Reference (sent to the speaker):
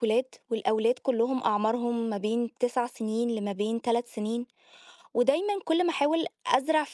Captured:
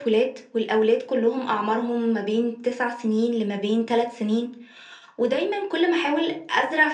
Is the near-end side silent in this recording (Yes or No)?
Yes